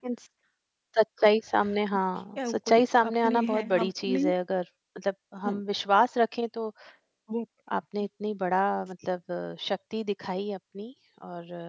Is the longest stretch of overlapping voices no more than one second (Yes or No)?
No